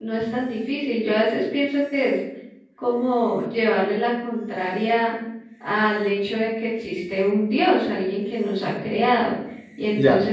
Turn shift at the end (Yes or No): No